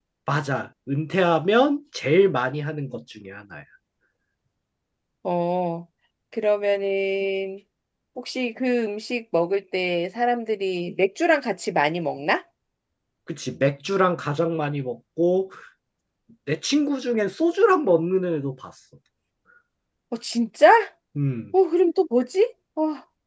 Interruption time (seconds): none

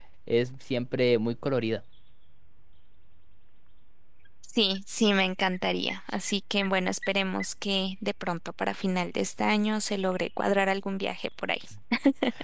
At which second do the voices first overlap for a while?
none

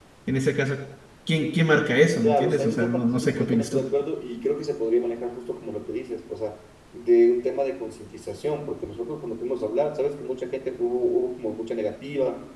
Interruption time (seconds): 2.2 s

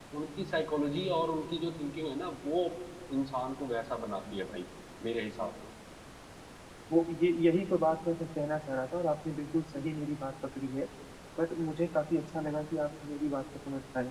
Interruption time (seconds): none

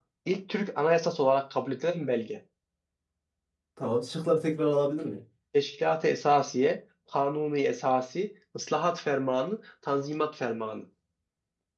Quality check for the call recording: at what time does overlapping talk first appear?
none

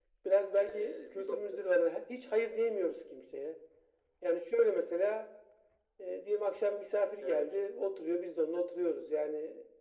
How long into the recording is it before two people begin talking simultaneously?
0.6 s

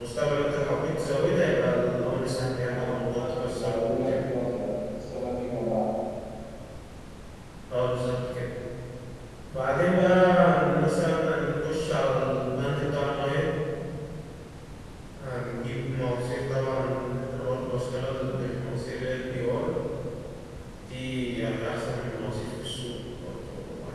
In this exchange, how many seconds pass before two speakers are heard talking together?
2.7 s

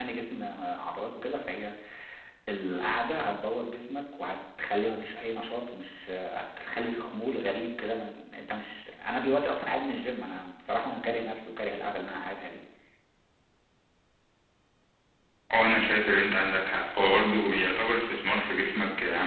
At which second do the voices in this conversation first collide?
none

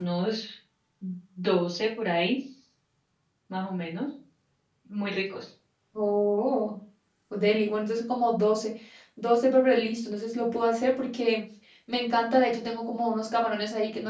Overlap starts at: none

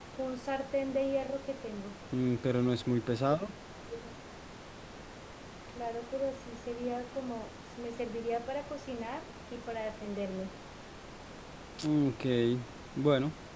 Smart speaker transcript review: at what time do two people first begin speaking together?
none

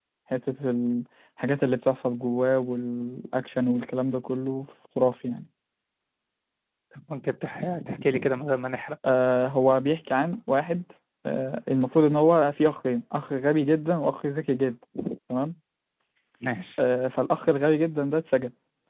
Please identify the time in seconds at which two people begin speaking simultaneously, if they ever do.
none

